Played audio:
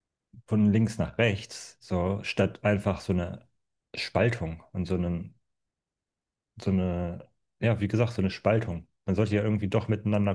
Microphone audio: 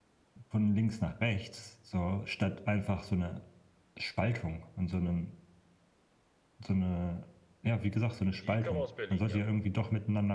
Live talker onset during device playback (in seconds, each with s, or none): 8.4 s